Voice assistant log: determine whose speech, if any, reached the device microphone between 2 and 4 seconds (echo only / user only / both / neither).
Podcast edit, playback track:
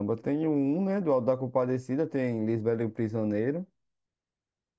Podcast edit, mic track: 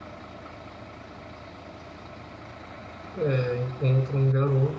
user only